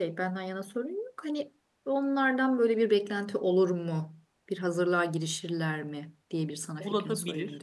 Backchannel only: No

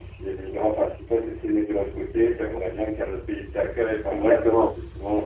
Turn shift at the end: No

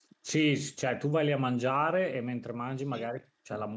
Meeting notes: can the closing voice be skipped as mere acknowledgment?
Yes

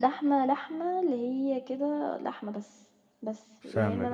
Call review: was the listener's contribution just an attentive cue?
Yes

